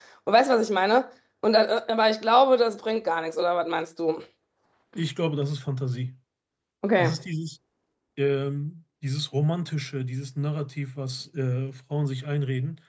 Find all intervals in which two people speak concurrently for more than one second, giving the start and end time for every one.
none

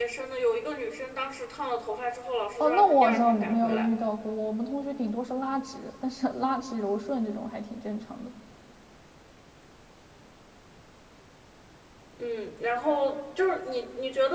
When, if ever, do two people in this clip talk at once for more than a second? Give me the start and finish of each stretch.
2.6-3.9

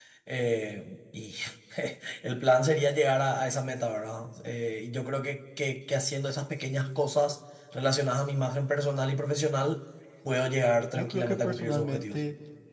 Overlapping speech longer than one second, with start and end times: 11.0-12.2

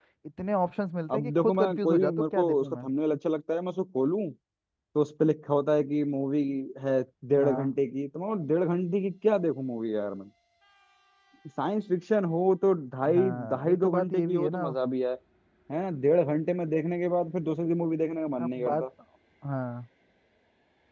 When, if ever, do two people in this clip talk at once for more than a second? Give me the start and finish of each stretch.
1.1-2.9, 13.1-14.7

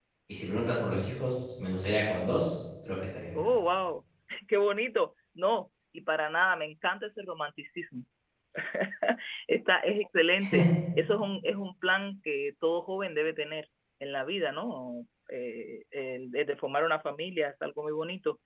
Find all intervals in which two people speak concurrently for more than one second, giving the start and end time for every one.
none

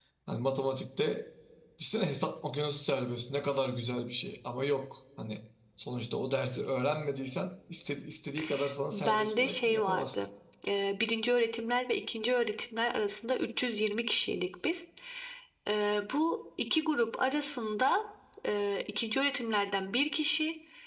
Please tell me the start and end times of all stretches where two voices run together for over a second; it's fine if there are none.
8.9-10.2

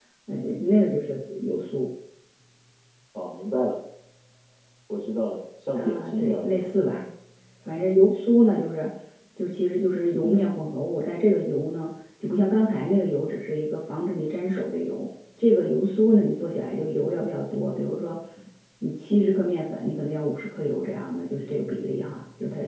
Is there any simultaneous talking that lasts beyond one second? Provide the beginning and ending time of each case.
5.7-7.0

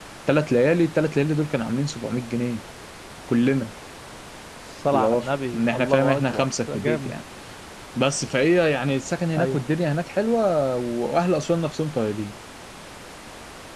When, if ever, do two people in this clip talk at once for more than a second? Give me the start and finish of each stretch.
4.9-7.1

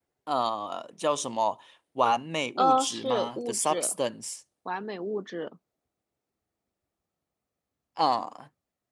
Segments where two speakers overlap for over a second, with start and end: 2.6-4.0

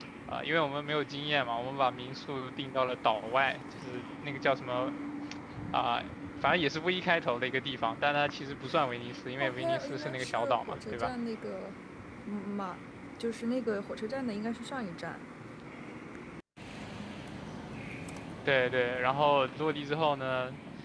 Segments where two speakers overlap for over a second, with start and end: 9.4-11.1

